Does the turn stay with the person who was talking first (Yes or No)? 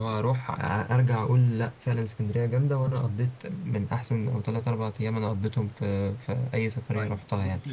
No